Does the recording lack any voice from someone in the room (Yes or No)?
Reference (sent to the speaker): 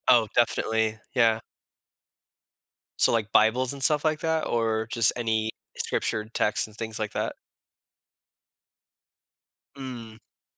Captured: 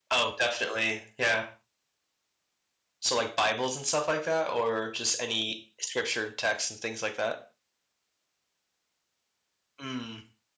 Yes